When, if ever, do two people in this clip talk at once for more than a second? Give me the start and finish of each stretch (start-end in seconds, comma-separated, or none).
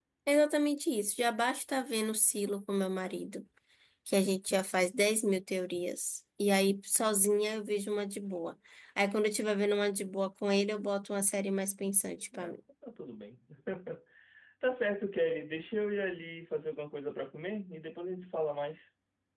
none